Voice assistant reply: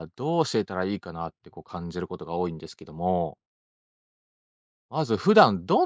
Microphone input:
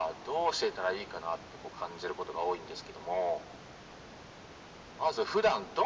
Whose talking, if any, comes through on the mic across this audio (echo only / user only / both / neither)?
echo only